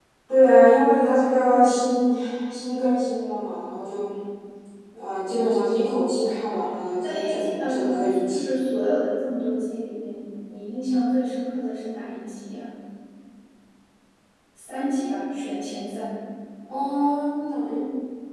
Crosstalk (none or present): present